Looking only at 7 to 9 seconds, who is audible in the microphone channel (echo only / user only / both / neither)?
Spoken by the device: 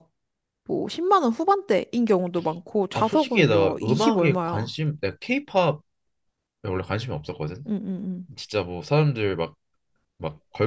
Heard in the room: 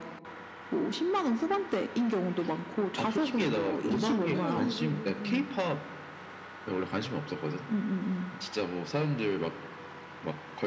echo only